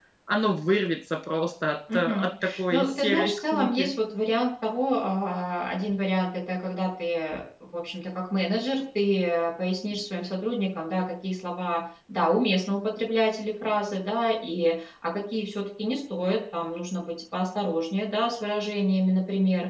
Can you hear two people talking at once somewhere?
Yes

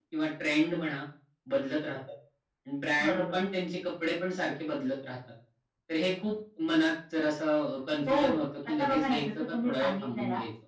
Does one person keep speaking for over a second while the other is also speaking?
Yes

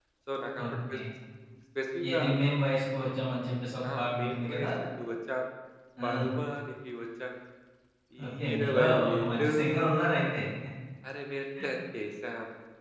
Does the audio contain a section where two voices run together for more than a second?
Yes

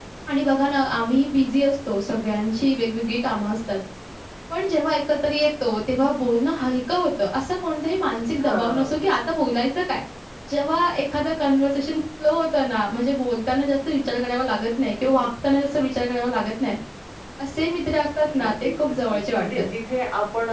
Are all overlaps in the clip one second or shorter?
No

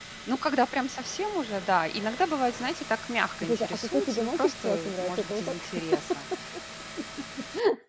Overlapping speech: Yes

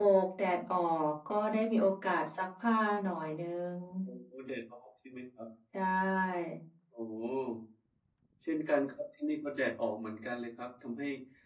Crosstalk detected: No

